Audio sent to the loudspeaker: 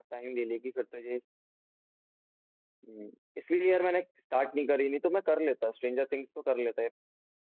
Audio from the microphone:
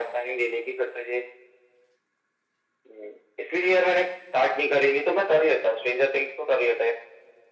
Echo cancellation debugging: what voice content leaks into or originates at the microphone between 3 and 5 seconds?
echo only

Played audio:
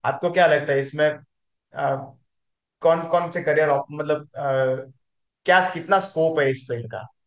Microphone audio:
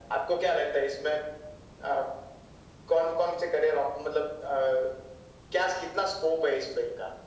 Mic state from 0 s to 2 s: echo only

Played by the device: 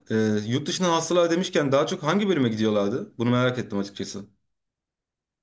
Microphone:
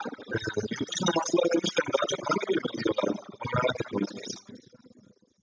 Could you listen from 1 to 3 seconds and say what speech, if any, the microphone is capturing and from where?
echo only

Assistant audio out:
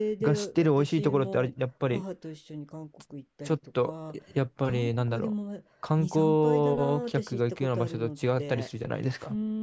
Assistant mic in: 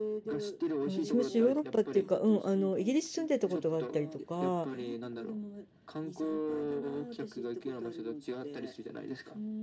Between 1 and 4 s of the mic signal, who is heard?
both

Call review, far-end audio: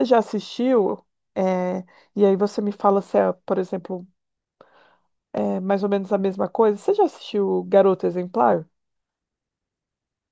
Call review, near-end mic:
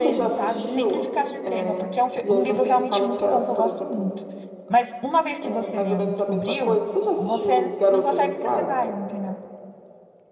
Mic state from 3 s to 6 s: both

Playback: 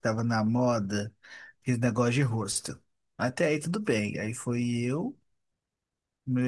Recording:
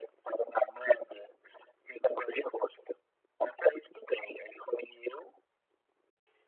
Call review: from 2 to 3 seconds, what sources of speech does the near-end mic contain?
echo only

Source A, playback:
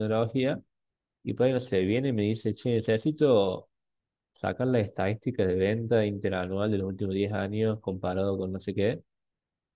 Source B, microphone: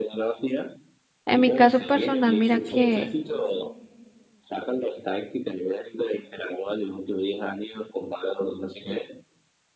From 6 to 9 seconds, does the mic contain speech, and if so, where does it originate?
echo only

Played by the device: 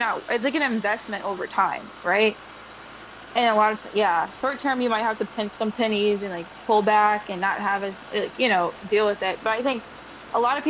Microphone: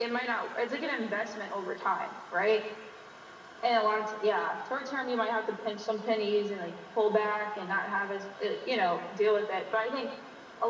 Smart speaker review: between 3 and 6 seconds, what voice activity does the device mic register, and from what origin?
echo only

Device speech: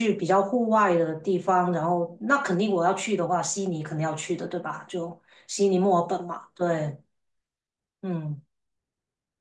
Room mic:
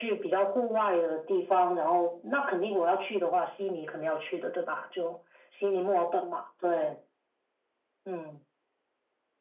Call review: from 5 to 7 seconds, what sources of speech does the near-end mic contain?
echo only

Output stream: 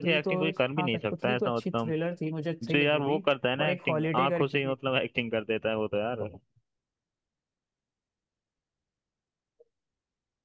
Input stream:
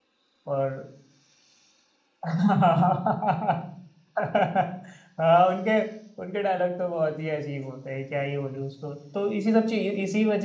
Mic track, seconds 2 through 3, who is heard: user only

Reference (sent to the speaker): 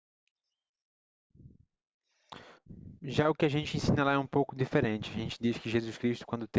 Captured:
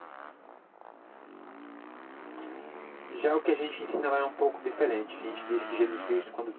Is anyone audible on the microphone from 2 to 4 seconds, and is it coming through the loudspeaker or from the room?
echo only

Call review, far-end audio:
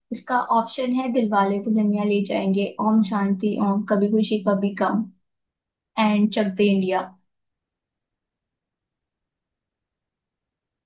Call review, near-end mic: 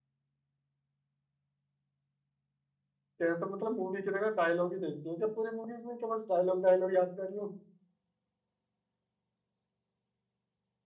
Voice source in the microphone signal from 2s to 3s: neither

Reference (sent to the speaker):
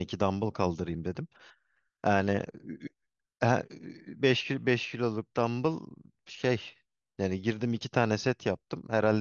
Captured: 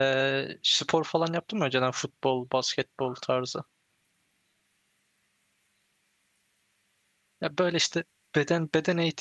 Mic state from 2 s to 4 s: user only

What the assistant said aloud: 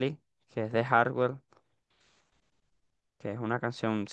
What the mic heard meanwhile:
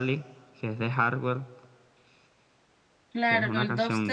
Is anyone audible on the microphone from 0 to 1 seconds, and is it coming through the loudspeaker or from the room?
echo only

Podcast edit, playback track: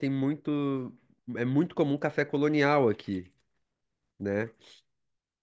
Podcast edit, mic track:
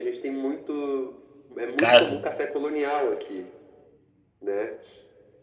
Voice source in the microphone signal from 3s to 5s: echo only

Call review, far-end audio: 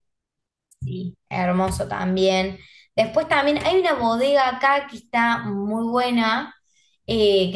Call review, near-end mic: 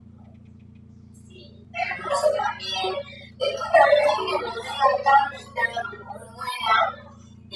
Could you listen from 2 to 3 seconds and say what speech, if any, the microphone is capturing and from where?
echo only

